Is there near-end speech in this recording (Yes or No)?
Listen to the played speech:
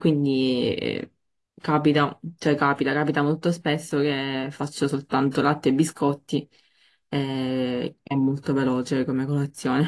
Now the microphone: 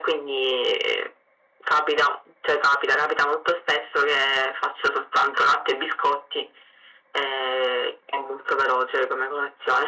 No